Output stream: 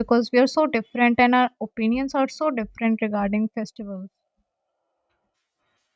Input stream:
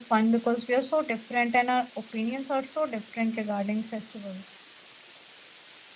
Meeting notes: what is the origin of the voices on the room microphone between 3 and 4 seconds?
echo only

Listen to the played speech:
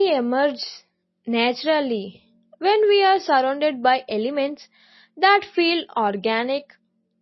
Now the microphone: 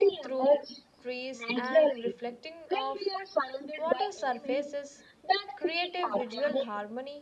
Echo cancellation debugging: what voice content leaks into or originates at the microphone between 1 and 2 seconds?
both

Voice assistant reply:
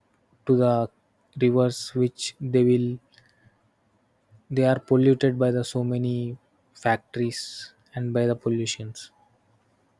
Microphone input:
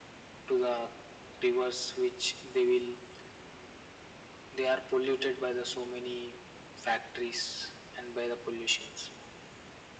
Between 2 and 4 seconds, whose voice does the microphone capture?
echo only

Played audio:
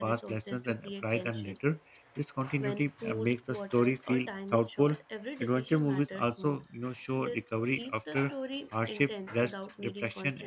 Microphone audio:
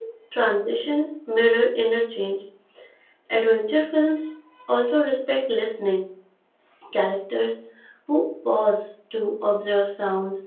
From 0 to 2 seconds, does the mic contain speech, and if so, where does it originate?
user only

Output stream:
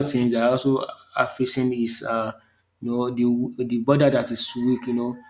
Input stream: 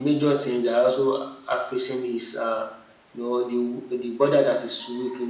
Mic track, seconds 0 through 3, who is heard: echo only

